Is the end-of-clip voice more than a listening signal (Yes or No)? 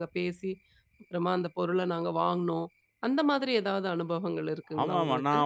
Yes